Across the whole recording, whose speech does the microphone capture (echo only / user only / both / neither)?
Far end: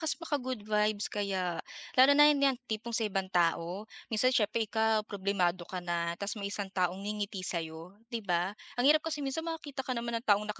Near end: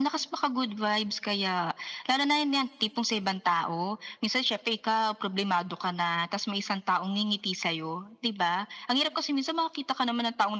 echo only